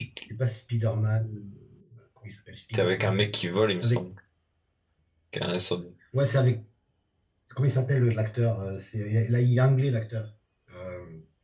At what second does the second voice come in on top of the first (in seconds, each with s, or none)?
2.7 s